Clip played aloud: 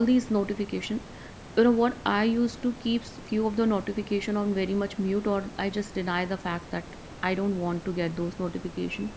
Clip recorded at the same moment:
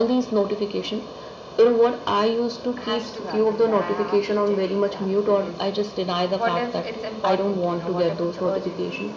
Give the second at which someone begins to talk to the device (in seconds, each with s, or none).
2.8 s